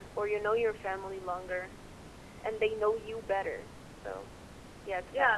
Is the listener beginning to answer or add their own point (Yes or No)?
Yes